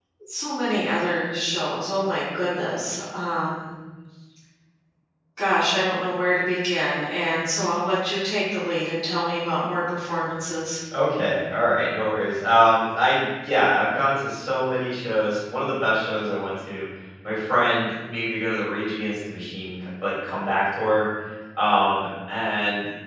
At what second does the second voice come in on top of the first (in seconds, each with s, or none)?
none